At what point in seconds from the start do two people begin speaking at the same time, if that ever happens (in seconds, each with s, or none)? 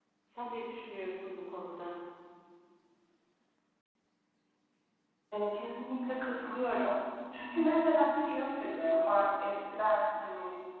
none